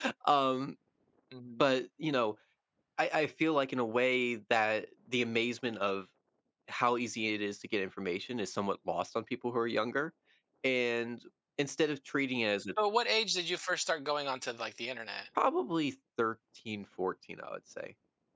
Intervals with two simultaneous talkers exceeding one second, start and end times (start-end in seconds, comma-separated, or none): none